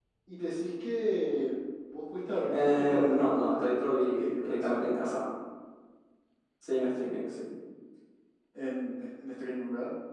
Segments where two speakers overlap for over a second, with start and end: 2.5-5.2

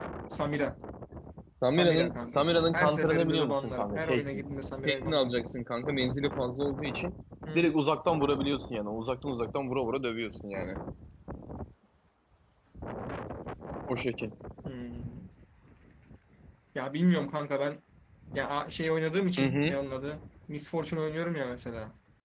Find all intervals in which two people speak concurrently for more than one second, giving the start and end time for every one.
1.6-4.4

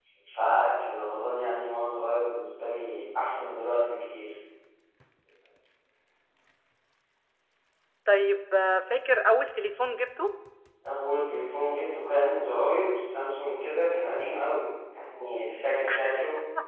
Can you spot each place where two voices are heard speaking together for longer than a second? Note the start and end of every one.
none

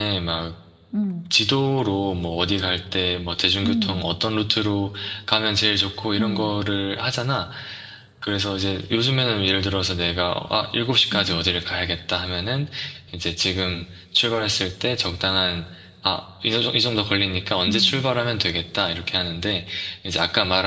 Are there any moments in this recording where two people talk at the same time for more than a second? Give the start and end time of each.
none

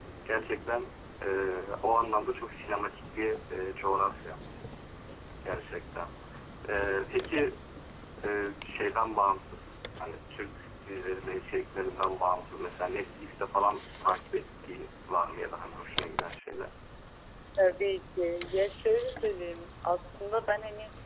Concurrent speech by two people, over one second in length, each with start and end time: none

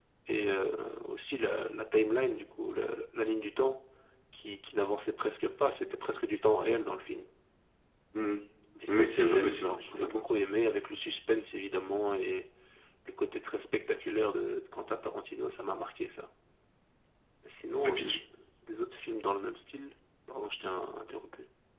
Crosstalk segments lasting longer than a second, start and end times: 8.9-10.3

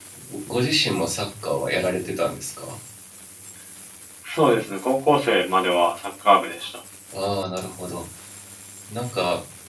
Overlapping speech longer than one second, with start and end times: none

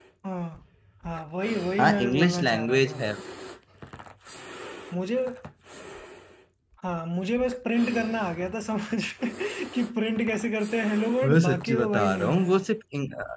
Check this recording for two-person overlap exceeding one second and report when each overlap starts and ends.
1.8-3.0, 11.2-12.6

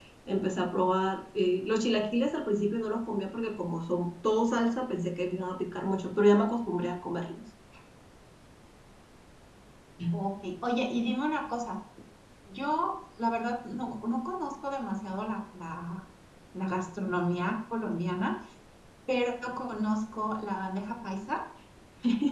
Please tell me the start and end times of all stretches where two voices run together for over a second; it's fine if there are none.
none

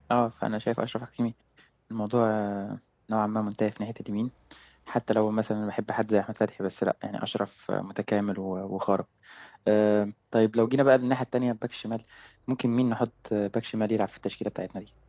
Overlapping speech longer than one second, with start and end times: none

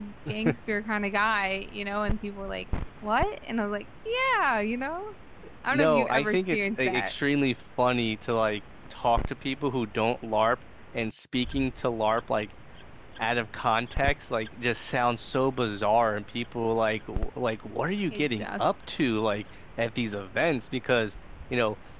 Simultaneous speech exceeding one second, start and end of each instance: 5.7-7.1

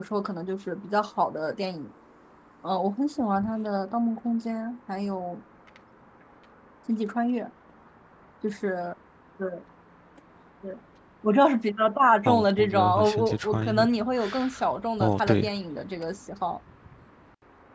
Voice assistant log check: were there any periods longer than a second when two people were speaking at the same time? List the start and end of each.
12.2-13.8

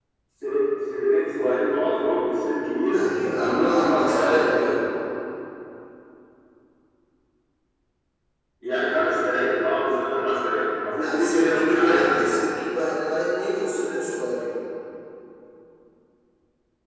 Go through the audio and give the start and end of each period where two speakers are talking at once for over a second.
3.4-4.8, 11.0-12.3

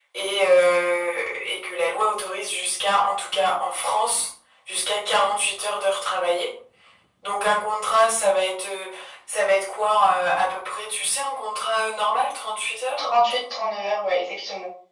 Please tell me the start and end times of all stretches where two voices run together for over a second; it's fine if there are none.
none

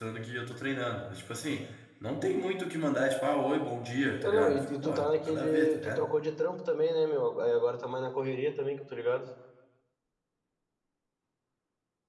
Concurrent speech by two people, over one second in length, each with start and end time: 4.2-6.0

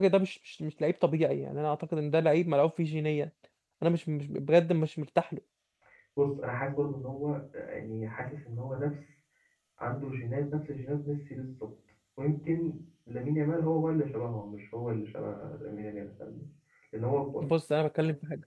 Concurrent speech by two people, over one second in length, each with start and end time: none

